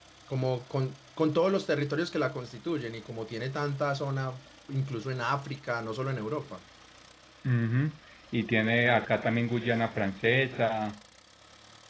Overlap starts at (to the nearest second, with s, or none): none